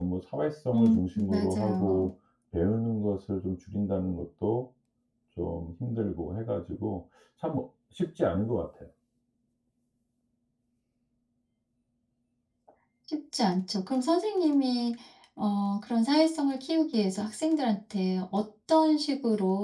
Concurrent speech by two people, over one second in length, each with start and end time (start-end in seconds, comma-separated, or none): 0.7-2.1